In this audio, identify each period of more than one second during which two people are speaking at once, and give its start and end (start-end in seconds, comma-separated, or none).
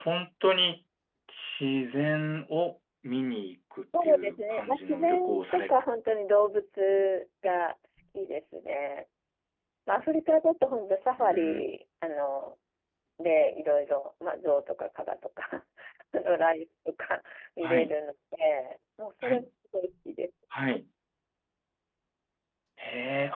4.0-5.7